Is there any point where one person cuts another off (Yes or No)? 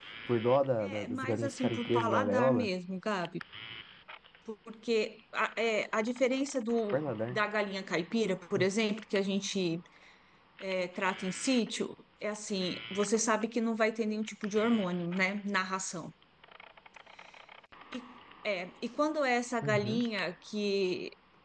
Yes